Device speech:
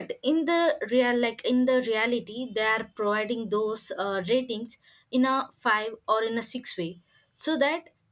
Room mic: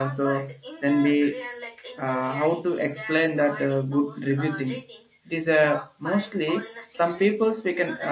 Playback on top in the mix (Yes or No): No